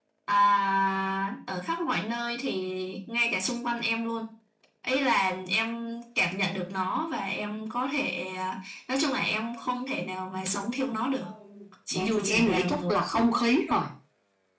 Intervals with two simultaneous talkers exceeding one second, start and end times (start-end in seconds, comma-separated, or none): 11.9-13.3